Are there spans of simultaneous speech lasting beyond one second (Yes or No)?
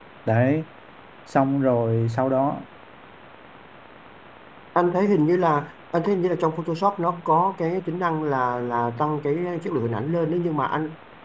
No